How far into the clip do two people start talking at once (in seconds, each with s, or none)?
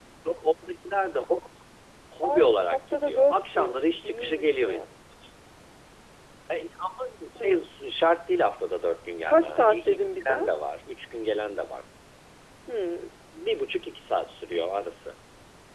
2.2 s